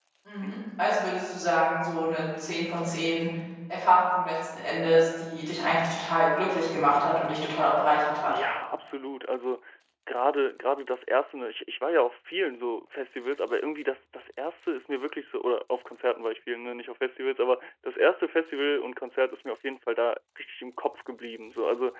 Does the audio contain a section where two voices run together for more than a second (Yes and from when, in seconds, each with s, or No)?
No